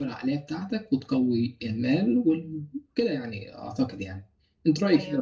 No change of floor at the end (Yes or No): No